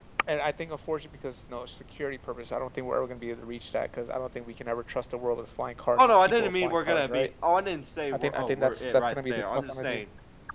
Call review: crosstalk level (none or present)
present